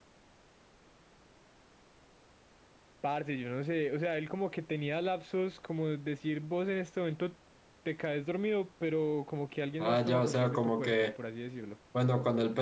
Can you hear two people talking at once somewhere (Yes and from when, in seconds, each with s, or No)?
Yes, from 9.8 s